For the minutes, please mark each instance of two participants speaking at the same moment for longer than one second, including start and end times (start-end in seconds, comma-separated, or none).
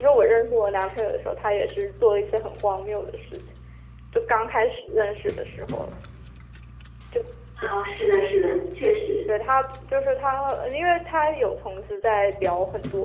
none